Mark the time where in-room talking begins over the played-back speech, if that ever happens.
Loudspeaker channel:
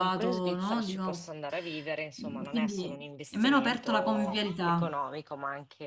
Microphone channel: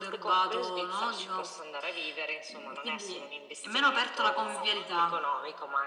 none

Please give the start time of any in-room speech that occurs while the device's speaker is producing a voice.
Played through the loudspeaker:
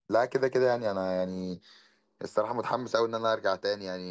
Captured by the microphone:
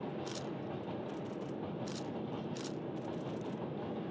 none

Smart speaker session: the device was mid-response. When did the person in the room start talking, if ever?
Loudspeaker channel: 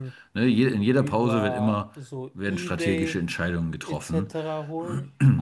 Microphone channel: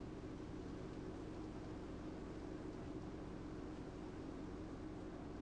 none

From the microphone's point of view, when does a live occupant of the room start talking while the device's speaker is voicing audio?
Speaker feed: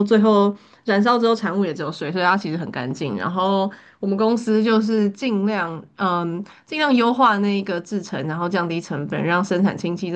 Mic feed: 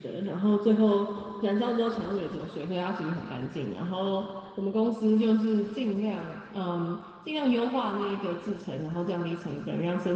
none

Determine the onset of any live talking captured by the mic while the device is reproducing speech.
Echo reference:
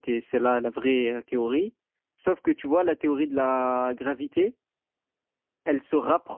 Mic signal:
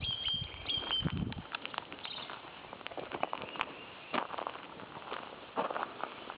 none

